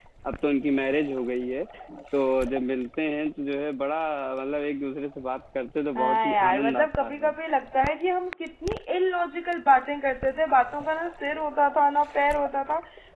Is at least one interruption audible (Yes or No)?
Yes